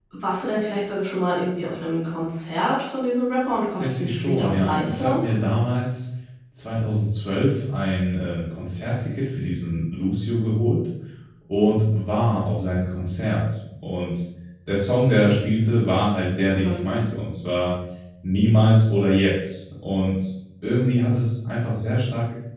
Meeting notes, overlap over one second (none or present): present